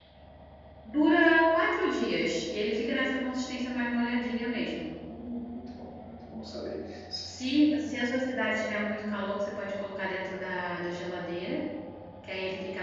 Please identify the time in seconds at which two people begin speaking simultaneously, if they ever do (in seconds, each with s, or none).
none